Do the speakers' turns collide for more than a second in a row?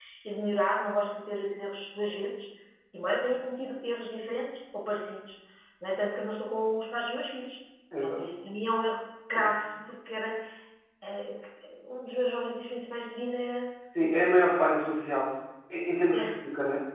No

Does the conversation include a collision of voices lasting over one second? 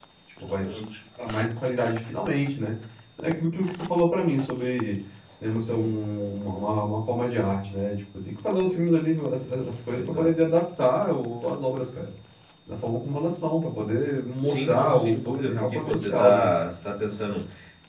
Yes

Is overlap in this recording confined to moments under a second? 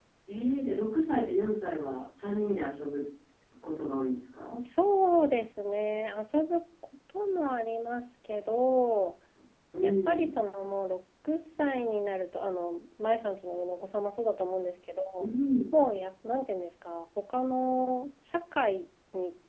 Yes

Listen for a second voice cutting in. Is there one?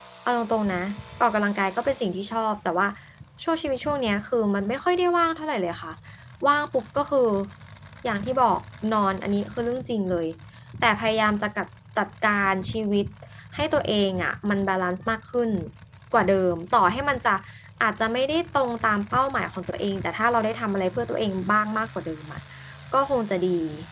No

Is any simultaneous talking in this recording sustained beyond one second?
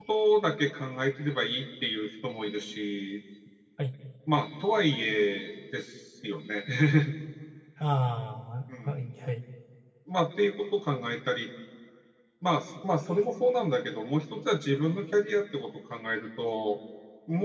No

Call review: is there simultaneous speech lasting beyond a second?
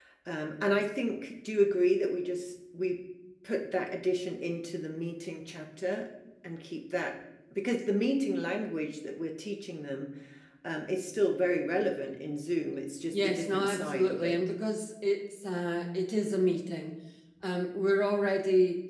Yes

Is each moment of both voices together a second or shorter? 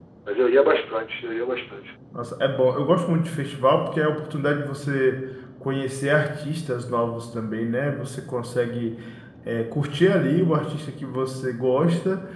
Yes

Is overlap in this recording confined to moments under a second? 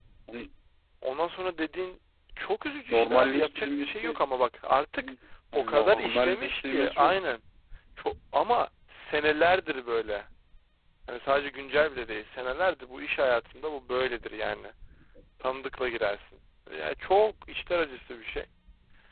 No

